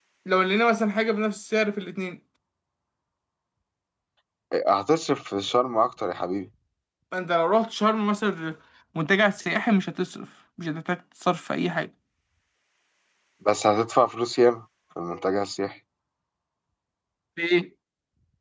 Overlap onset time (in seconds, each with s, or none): none